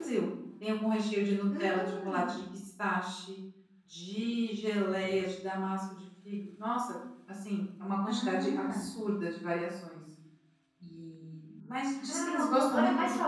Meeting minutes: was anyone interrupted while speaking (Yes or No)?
Yes